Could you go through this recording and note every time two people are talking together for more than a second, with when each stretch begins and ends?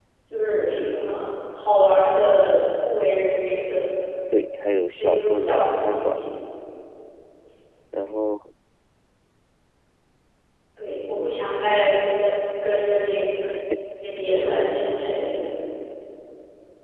5.0-6.2

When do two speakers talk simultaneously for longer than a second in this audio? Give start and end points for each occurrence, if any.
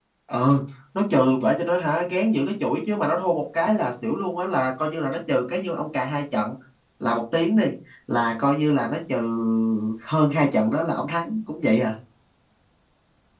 none

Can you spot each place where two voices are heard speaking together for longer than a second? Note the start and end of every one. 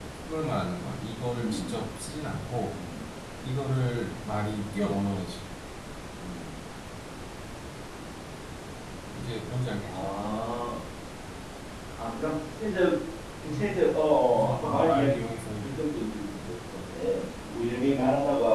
14.3-15.7

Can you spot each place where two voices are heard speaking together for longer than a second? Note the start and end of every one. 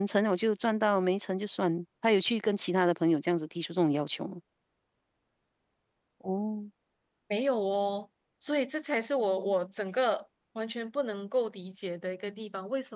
none

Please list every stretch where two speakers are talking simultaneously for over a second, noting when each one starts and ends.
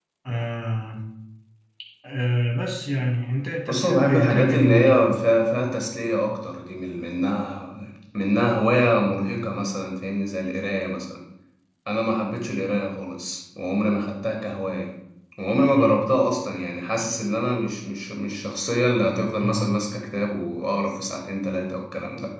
3.7-5.2

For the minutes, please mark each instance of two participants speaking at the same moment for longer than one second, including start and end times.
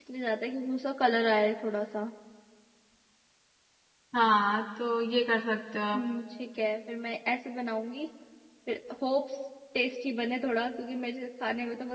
none

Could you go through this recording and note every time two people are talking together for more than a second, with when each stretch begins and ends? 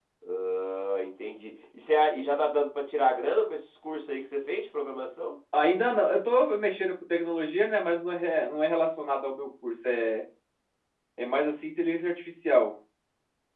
none

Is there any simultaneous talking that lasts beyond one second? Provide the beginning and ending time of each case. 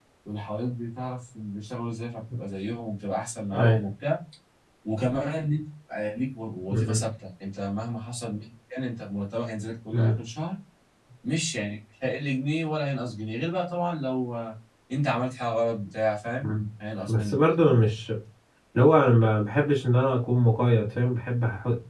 none

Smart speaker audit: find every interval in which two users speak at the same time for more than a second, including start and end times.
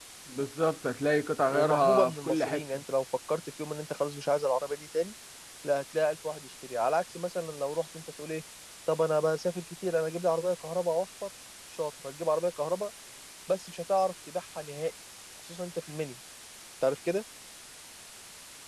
1.5-2.8

